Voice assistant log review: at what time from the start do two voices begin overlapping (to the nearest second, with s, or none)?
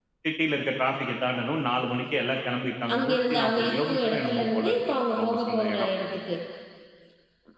3 s